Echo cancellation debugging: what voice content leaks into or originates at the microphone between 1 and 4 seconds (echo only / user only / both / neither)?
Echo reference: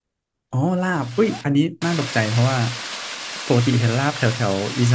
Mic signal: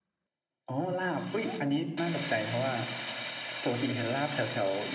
echo only